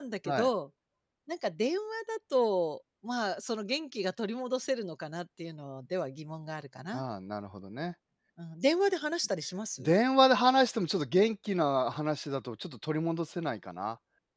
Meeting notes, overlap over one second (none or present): none